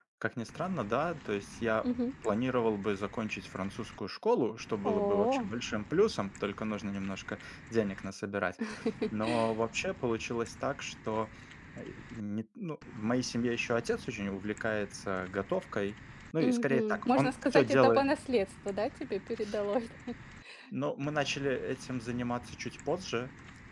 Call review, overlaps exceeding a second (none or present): present